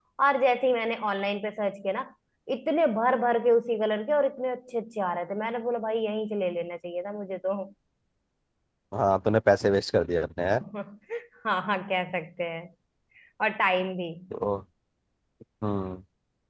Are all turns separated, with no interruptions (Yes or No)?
Yes